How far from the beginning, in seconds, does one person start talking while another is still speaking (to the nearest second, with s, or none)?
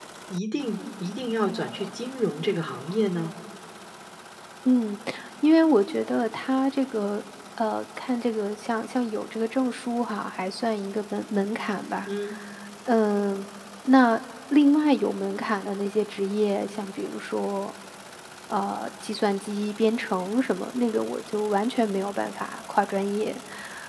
none